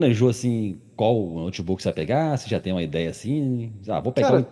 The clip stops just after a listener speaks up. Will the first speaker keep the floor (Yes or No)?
Yes